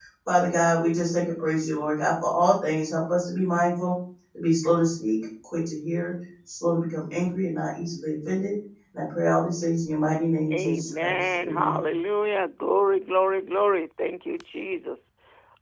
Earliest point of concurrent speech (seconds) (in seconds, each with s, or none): 10.5 s